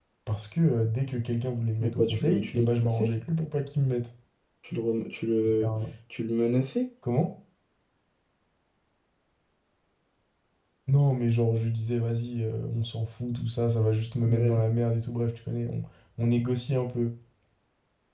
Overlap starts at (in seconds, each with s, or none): 1.8 s